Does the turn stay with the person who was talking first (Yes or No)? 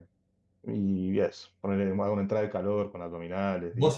No